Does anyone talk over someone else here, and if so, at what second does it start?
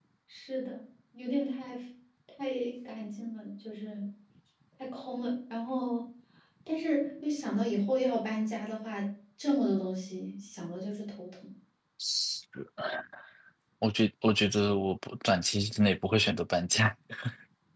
none

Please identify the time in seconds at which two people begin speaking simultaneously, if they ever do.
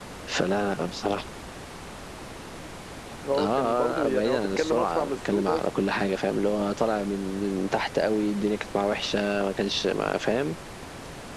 3.4 s

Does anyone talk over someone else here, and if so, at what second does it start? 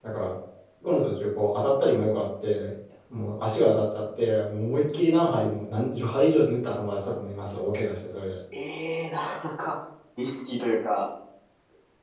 none

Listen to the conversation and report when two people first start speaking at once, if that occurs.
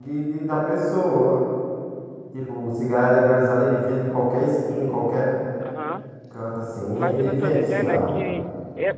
6.9 s

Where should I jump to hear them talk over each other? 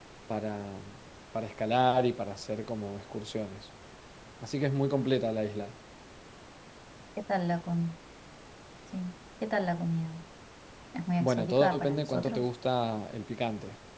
11.2 s

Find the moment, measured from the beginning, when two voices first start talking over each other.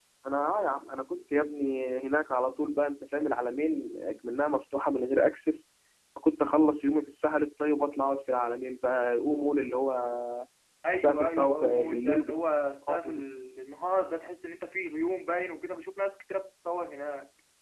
10.9 s

